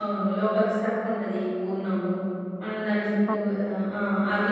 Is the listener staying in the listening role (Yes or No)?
Yes